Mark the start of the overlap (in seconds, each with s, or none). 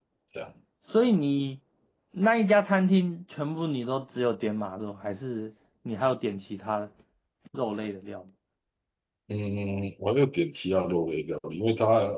none